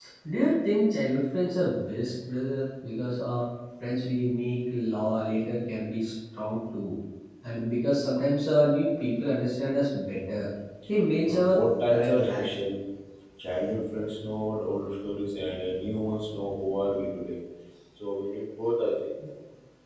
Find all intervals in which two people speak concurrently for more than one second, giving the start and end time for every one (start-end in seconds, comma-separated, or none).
11.2-12.5